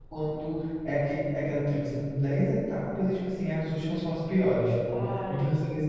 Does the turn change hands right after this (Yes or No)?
No